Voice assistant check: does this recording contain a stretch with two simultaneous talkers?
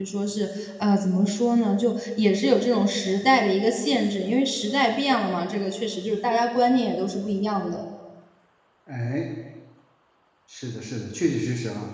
No

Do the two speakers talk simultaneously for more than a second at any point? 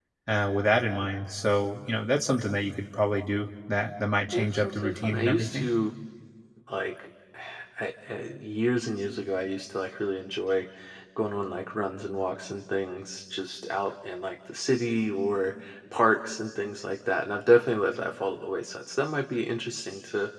Yes, from 4.3 s

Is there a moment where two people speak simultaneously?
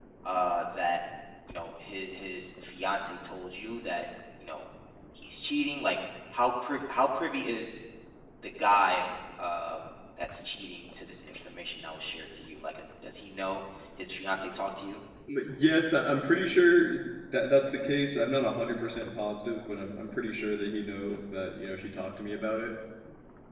No

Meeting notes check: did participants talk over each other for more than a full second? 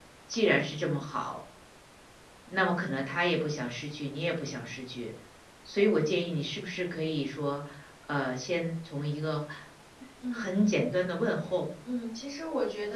No

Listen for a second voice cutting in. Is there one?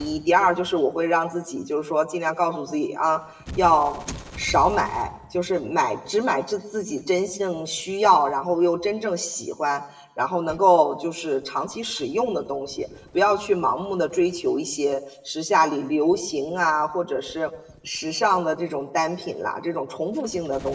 No

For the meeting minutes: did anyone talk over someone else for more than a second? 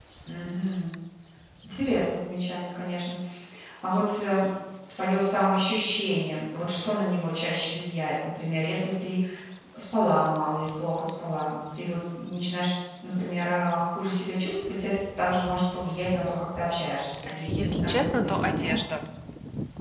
Yes, from 17.3 s

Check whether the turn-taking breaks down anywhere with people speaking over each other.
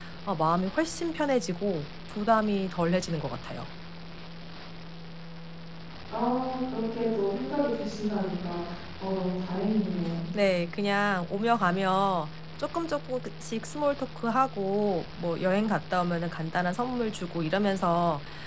No

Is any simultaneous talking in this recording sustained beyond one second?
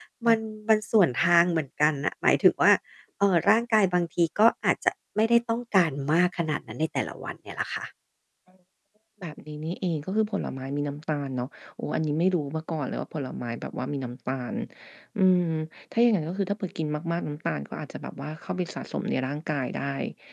No

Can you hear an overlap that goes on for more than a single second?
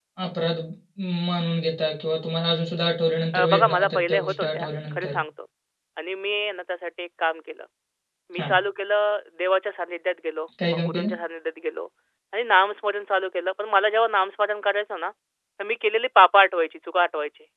Yes, from 3.3 s

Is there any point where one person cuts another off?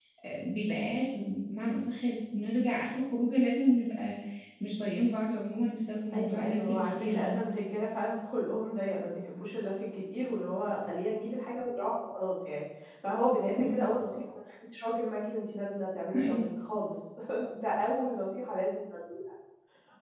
Yes, from 6.1 s

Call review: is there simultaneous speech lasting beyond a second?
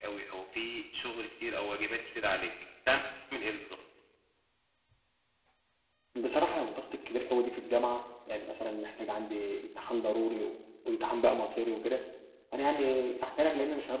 No

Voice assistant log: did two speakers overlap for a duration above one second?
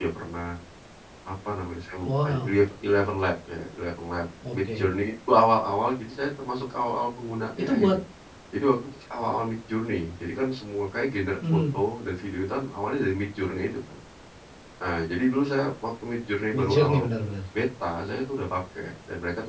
No

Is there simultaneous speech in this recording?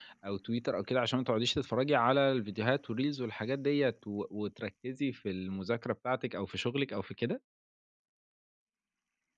No

